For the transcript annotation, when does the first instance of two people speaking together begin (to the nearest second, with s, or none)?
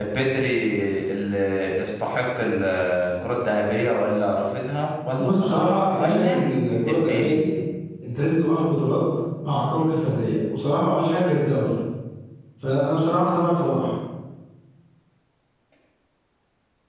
5 s